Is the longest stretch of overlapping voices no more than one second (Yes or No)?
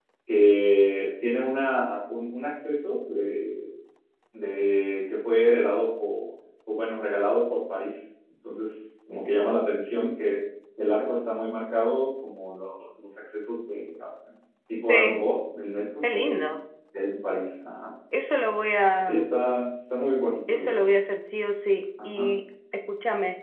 Yes